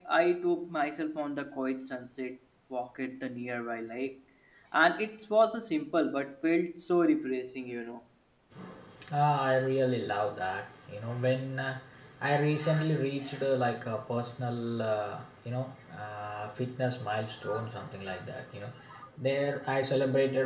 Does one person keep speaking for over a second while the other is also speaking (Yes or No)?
No